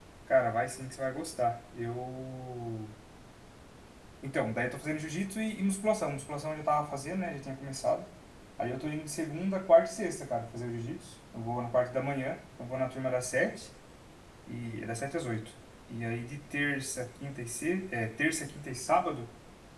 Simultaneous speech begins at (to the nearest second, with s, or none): none